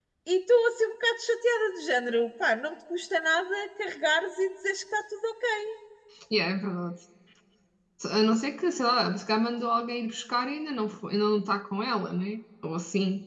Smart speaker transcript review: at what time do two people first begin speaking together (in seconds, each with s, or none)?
none